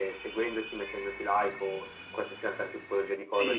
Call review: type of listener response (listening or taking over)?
taking over